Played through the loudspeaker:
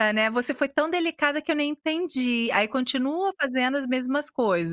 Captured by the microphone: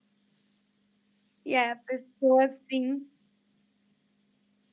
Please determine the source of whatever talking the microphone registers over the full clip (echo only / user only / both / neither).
user only